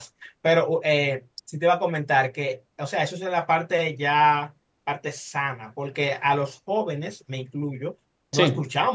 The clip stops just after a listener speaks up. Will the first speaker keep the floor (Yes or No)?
Yes